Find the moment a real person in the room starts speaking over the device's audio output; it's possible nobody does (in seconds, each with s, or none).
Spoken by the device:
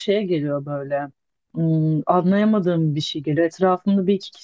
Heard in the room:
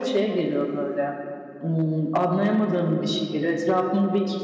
none